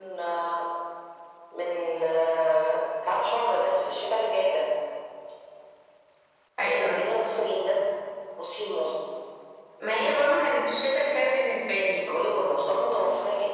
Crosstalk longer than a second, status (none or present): none